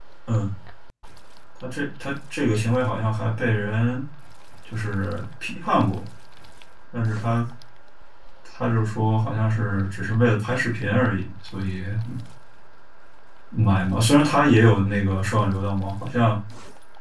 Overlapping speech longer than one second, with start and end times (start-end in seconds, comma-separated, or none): none